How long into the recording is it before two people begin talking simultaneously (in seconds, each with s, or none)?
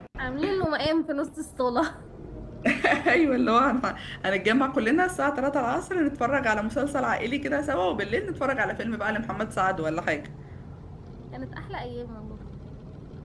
none